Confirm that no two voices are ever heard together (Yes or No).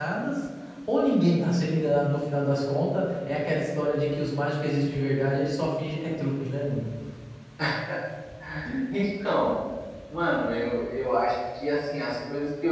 Yes